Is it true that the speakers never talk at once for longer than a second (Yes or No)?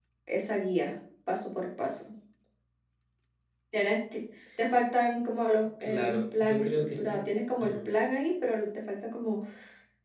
No